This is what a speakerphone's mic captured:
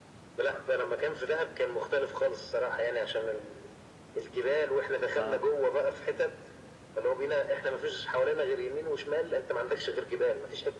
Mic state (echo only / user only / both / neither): both